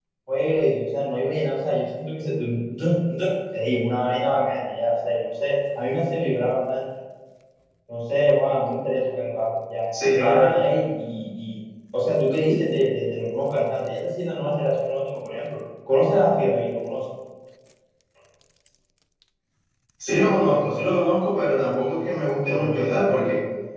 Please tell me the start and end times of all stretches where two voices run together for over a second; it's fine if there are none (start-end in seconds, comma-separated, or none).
none